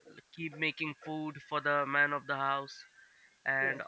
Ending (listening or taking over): listening